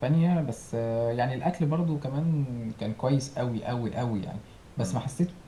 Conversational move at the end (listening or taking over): listening